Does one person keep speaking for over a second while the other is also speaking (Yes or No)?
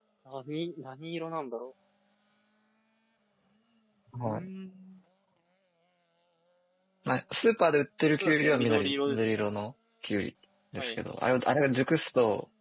Yes